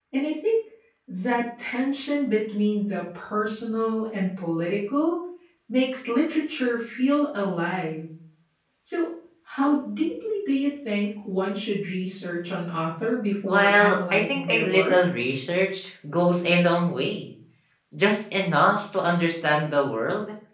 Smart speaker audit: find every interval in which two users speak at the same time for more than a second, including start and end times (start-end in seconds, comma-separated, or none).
13.5-14.9